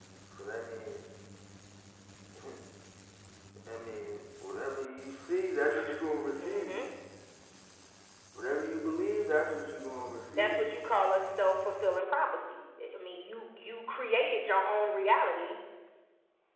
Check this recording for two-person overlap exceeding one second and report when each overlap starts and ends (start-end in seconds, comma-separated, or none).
none